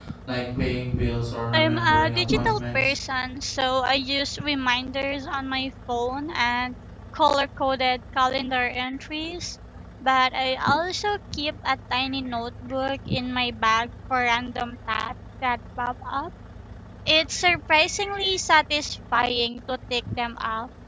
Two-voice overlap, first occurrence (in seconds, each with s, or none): 1.5 s